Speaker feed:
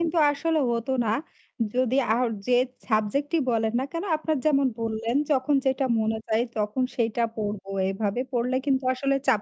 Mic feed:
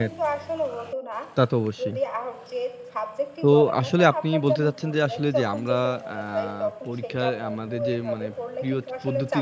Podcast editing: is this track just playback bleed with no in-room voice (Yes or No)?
No